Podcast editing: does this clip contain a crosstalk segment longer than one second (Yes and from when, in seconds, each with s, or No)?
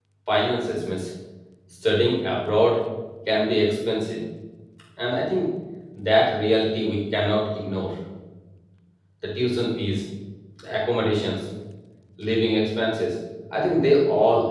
No